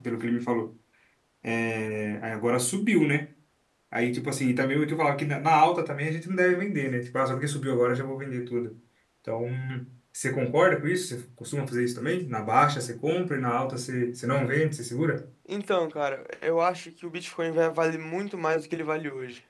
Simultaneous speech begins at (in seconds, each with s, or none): none